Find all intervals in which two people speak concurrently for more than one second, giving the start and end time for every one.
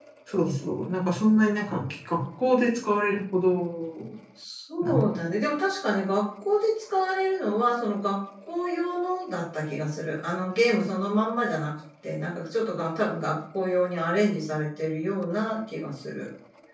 none

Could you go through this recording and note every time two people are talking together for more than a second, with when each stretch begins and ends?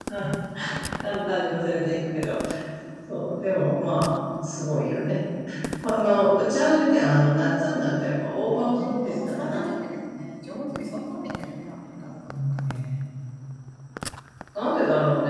8.4-9.6

